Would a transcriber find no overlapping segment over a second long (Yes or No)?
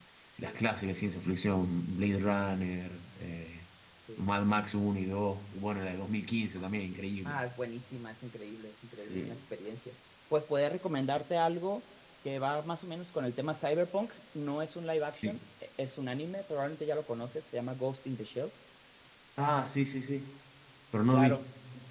Yes